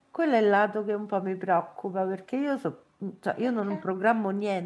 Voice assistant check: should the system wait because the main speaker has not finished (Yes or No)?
Yes